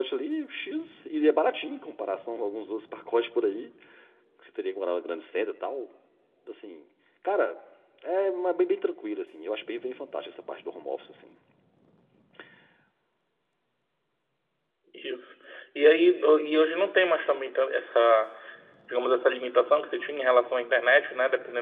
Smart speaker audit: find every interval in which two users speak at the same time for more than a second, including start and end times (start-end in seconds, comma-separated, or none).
none